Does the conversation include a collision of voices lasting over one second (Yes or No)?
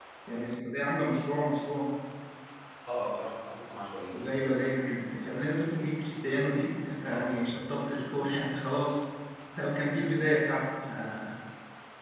No